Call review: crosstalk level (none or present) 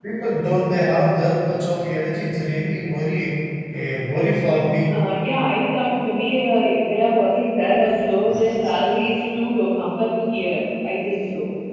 none